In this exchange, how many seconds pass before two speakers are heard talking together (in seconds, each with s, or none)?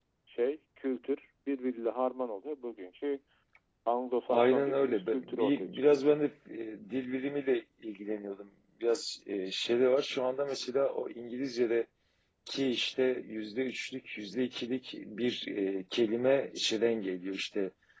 4.3 s